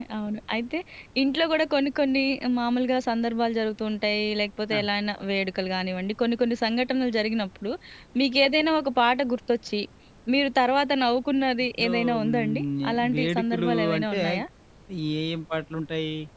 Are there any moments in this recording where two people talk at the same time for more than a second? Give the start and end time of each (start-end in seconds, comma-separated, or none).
11.8-14.2